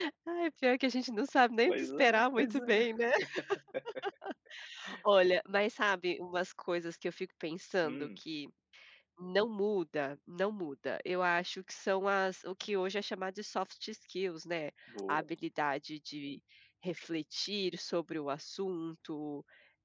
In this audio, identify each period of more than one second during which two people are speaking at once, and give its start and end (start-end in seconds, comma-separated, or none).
1.6-2.9